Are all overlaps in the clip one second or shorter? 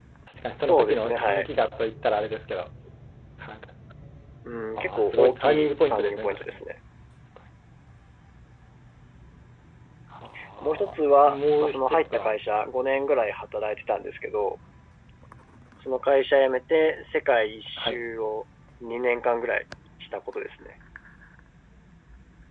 No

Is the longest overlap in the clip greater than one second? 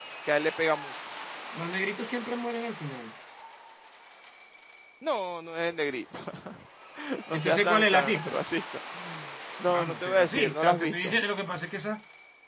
Yes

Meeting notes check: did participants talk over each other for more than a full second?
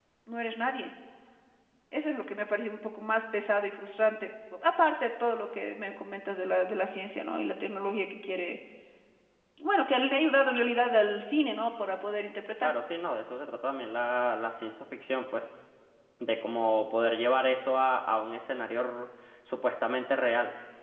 No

